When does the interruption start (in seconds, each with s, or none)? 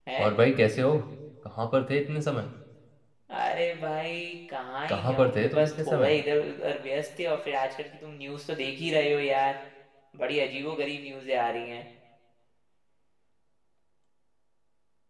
4.9 s